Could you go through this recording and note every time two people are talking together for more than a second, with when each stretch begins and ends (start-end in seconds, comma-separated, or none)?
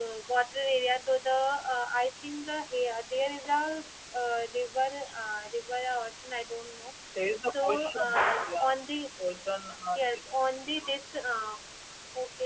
7.5-8.7